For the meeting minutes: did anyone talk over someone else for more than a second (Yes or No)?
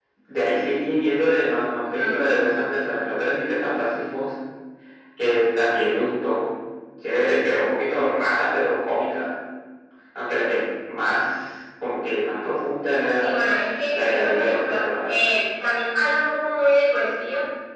Yes